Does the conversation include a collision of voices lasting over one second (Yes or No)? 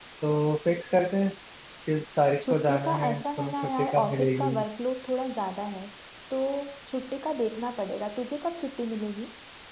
Yes